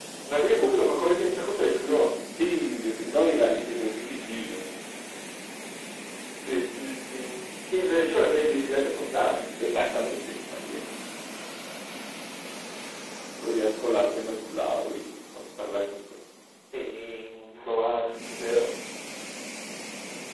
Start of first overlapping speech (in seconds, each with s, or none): none